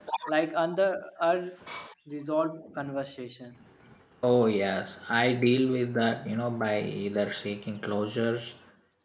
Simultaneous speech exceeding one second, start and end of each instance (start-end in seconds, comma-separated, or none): none